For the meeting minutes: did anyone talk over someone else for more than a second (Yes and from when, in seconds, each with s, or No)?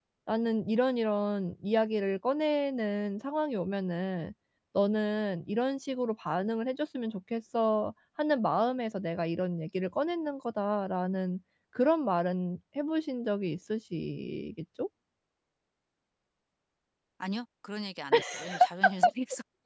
No